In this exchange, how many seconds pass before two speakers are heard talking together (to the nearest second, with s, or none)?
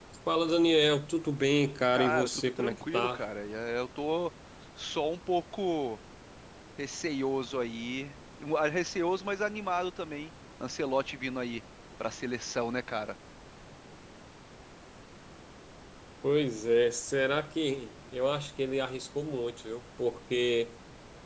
2 s